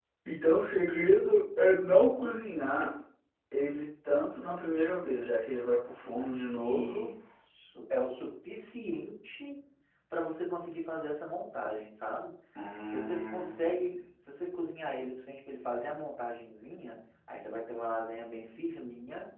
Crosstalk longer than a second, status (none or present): present